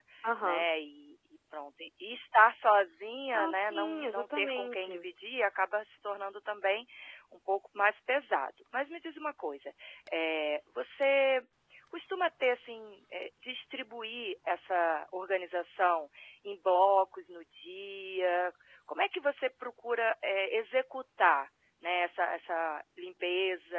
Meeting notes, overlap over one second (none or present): present